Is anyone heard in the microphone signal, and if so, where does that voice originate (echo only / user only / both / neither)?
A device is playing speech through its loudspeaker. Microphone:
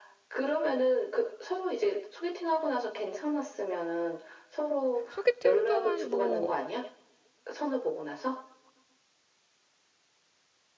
both